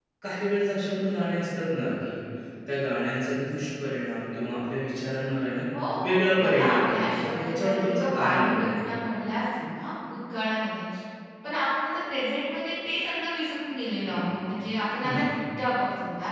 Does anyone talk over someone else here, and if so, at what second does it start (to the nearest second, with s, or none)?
6 s